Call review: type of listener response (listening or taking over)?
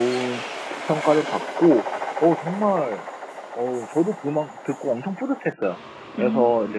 listening